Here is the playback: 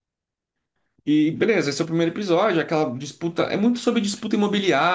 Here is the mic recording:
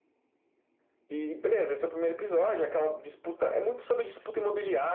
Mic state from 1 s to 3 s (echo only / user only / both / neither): echo only